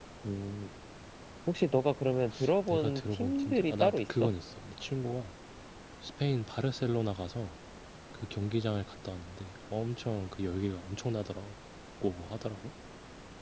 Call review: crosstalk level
present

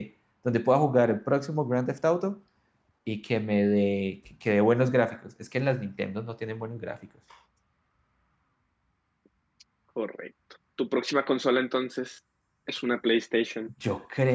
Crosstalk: none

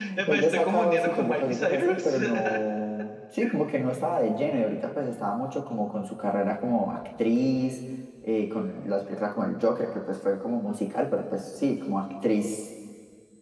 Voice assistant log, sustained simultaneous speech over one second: present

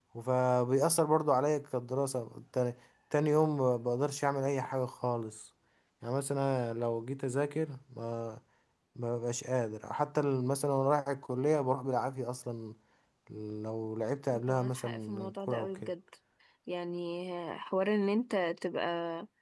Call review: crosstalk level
present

